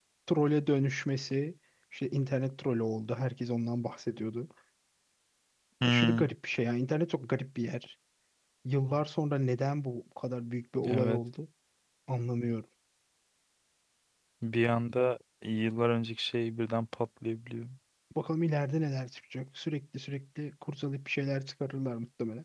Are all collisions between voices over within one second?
Yes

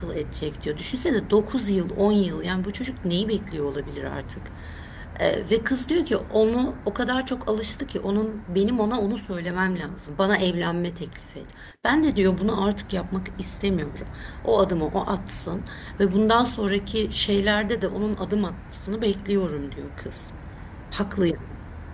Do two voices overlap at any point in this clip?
No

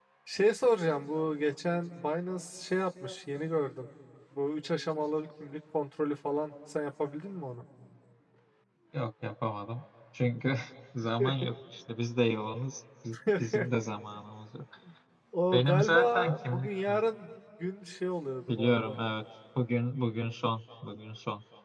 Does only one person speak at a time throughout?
No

